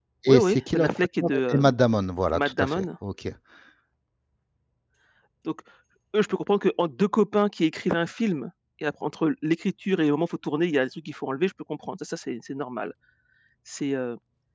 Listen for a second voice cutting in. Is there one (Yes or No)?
Yes